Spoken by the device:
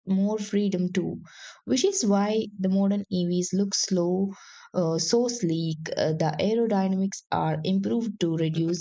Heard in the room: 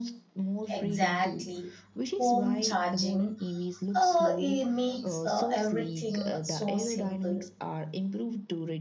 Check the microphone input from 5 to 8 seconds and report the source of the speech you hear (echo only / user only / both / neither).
both